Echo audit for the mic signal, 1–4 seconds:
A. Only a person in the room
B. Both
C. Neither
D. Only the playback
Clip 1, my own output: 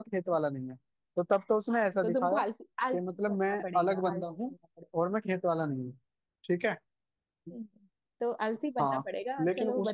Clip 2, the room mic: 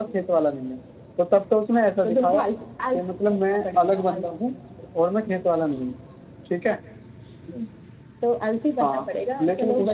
D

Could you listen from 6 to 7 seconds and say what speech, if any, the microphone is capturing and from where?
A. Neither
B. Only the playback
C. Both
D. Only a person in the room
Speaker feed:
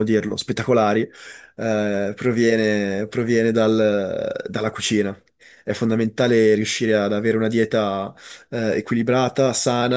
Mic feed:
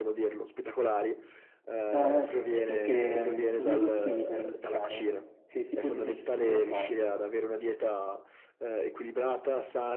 C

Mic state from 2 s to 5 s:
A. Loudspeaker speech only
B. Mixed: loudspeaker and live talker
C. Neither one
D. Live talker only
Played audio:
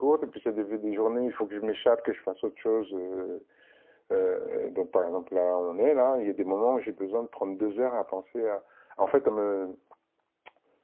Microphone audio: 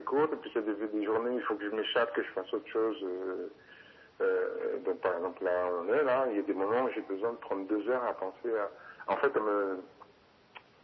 A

